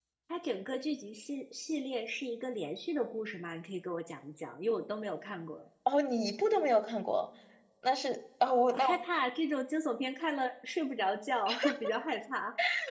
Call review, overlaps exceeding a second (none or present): none